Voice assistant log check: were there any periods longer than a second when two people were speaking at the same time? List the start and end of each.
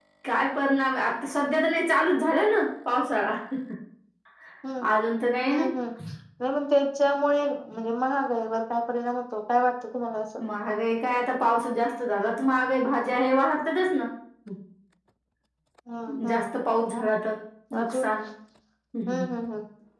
none

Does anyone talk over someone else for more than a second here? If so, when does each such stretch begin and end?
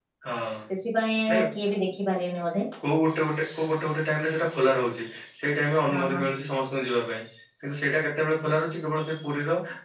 none

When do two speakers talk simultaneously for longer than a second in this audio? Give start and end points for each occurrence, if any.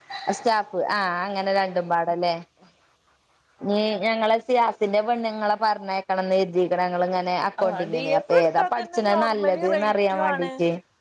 7.6-10.5

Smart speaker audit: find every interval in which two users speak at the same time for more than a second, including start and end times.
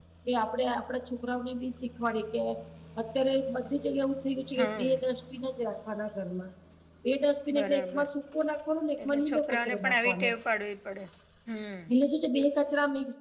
9.1-10.3

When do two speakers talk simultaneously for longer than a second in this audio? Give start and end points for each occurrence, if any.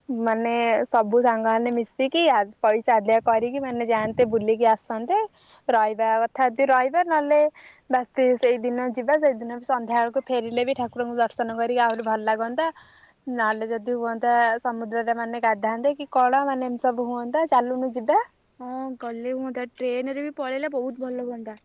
none

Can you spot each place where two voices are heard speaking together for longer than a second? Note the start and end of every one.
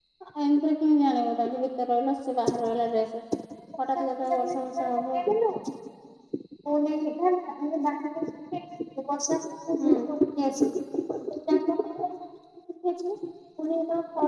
4.0-5.2

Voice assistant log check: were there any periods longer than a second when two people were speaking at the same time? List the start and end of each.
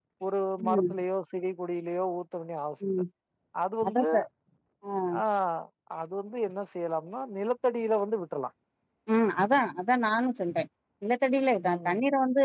none

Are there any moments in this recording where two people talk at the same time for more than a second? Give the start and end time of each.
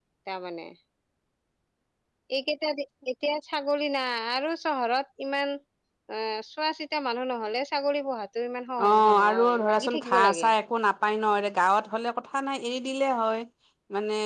8.8-10.5

